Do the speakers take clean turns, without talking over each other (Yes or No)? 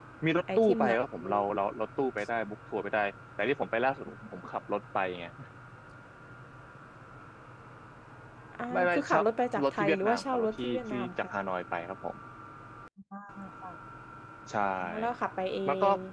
No